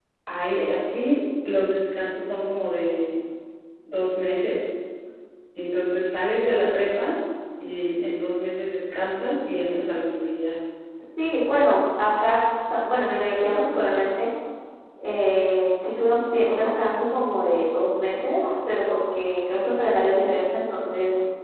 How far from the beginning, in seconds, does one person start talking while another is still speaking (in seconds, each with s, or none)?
none